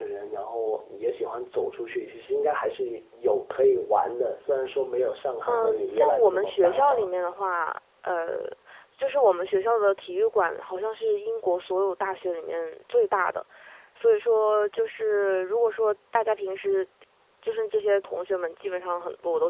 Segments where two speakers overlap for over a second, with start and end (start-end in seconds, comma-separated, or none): 5.5-7.1